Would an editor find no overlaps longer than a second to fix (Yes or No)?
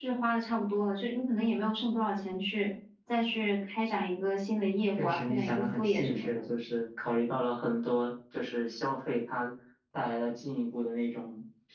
No